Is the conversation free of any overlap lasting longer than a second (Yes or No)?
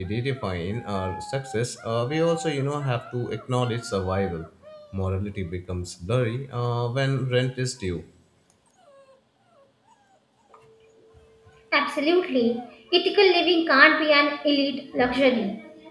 Yes